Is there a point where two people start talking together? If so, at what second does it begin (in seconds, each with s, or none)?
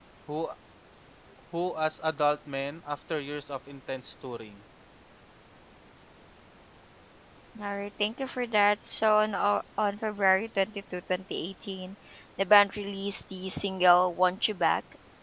none